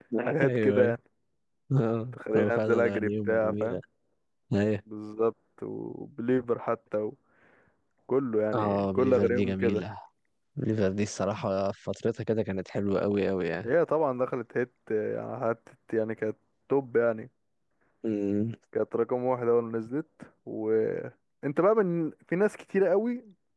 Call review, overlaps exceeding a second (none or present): present